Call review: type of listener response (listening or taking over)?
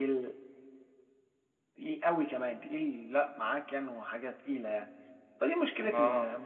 listening